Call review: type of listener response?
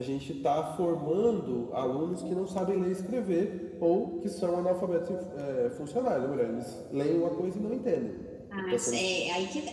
taking over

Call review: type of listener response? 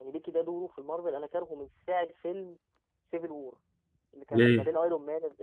listening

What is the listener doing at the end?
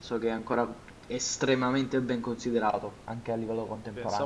taking over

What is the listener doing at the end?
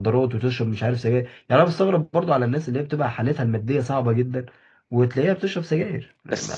taking over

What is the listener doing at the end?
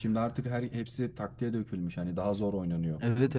taking over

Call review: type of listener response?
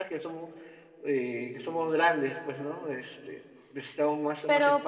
taking over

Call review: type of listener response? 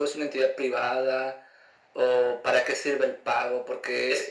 listening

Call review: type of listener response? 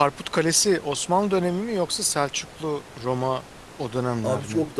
taking over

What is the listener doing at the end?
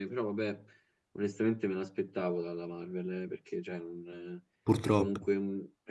listening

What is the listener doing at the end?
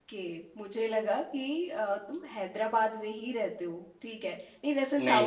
listening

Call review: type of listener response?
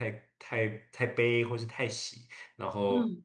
listening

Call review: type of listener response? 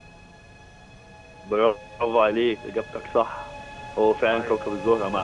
listening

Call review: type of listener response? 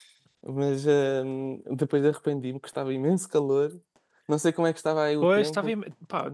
taking over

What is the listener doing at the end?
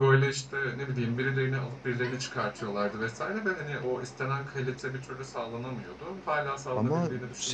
taking over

